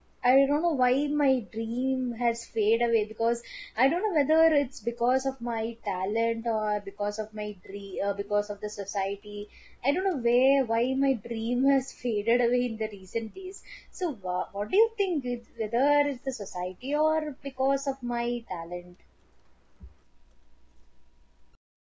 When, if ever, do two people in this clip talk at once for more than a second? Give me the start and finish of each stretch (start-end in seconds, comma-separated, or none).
none